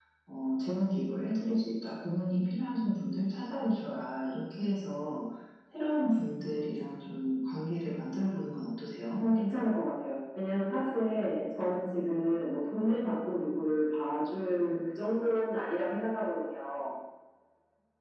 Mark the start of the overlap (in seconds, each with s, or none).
none